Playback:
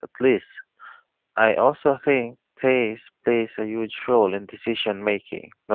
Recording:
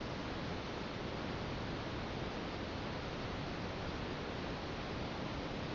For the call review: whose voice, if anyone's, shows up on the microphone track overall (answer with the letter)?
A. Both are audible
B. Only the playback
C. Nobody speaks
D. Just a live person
C